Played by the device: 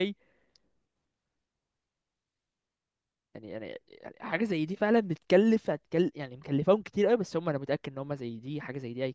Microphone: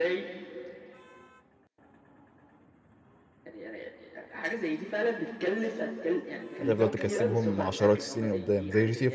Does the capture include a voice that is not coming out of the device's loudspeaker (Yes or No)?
Yes